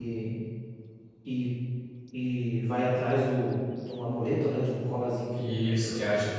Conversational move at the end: taking over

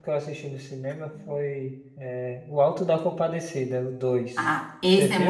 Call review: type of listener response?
taking over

